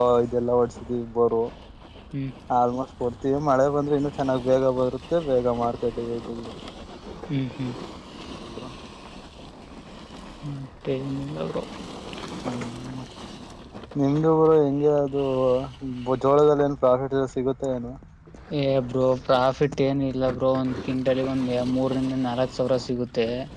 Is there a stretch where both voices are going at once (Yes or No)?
No